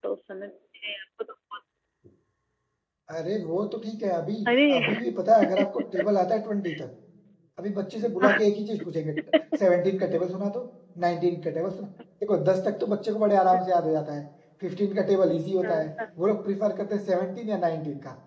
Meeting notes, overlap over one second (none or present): none